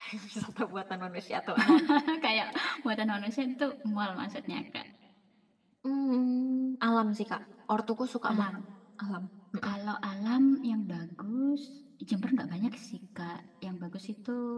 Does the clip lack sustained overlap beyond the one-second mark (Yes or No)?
Yes